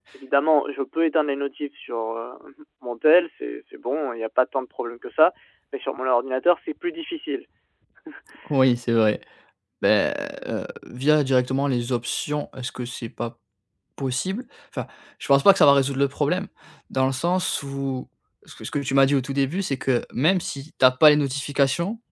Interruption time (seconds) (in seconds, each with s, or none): none